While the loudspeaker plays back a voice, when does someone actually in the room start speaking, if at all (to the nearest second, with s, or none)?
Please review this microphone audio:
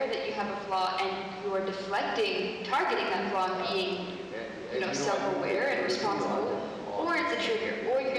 none